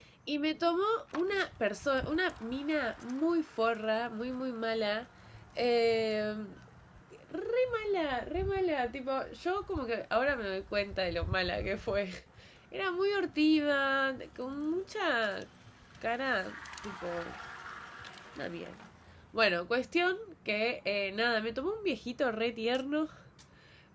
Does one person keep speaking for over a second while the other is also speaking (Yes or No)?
No